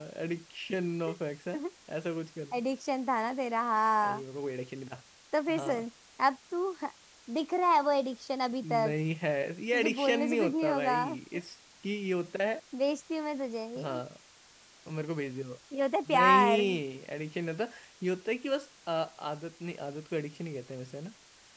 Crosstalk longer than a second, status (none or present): present